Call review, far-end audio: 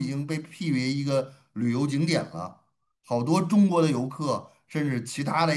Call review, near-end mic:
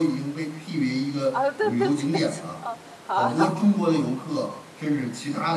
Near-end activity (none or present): present